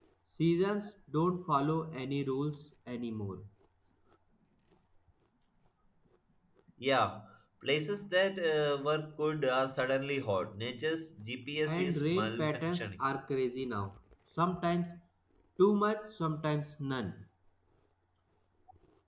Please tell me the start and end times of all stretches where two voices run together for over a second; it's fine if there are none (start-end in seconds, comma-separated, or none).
11.7-13.0